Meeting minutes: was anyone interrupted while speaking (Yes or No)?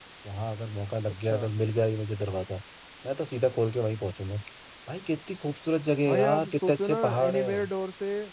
Yes